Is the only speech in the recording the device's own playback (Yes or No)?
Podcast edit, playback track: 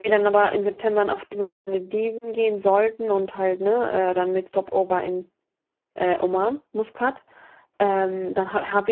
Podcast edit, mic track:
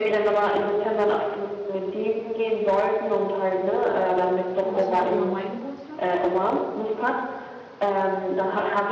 No